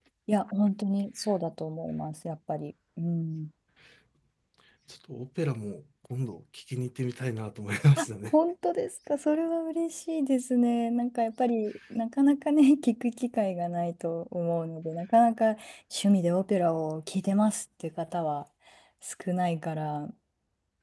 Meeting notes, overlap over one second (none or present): none